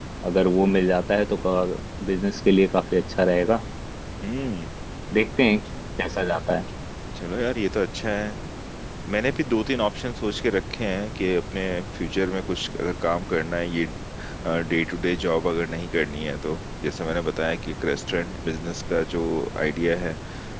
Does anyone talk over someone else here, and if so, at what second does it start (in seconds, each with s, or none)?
none